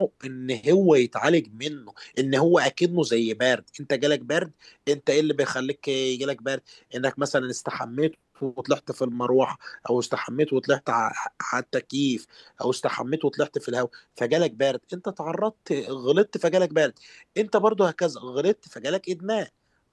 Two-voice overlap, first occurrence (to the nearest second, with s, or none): none